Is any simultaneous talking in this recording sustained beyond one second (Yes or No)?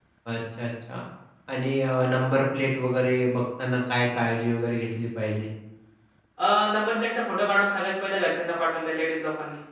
No